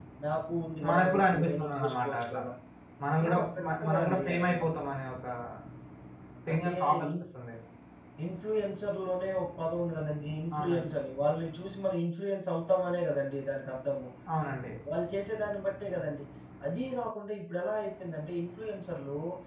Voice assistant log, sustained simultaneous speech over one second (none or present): present